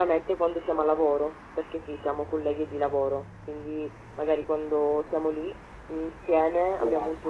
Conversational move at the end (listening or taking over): listening